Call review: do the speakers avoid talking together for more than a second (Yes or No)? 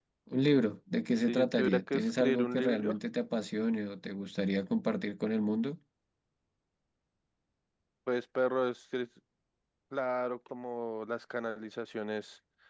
No